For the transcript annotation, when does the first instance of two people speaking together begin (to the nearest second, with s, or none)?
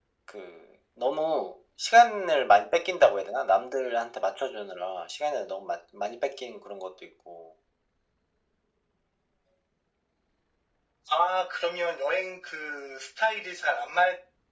none